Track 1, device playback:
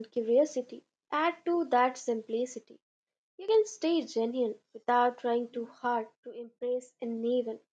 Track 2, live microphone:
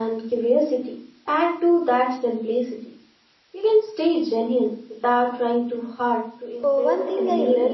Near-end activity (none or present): present